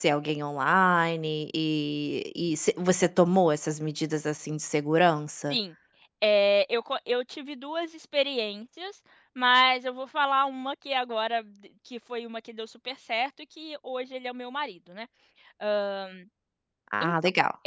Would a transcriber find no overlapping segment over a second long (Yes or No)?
Yes